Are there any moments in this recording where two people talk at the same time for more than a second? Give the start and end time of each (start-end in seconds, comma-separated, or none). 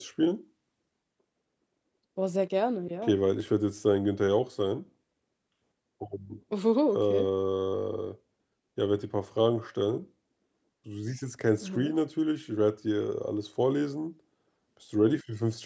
none